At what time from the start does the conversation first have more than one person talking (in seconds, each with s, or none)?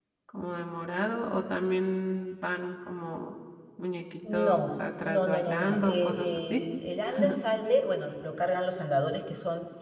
4.3 s